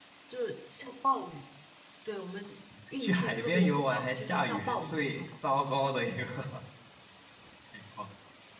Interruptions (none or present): present